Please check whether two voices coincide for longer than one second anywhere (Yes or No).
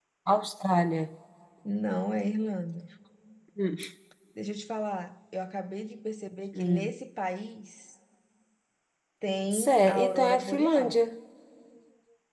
Yes